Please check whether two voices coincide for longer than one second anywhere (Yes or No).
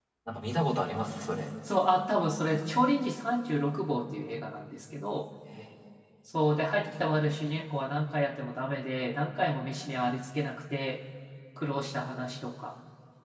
No